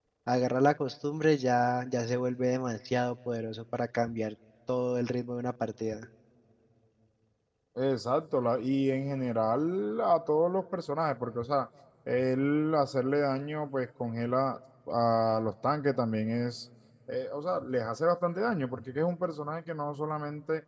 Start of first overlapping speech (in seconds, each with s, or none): none